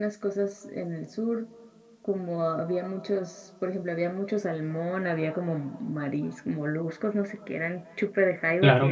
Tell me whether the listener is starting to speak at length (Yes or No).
No